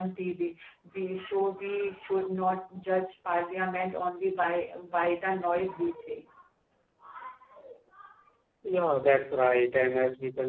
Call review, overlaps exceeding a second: none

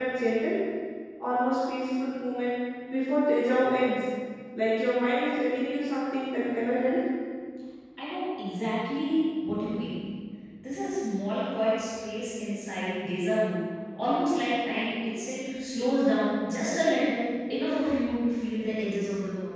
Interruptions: none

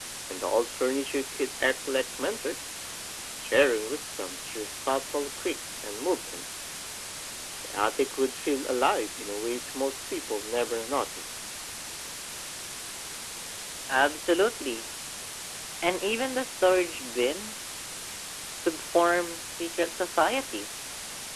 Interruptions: none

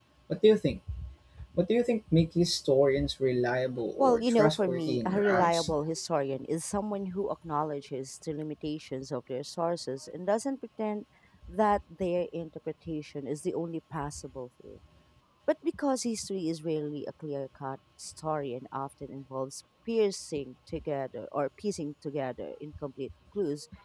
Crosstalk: present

